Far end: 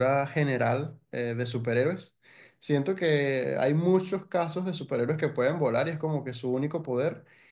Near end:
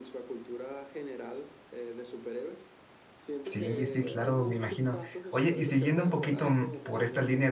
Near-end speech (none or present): present